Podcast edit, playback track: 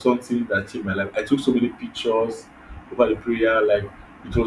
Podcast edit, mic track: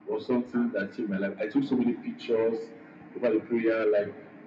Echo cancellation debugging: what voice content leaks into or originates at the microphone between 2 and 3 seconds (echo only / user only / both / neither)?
echo only